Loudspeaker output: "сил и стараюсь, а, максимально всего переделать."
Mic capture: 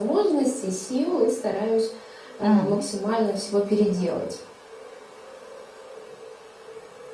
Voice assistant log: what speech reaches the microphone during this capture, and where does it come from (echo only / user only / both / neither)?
both